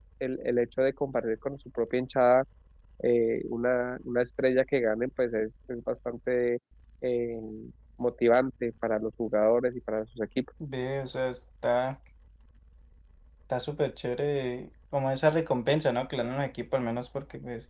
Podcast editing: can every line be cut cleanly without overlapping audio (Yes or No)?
Yes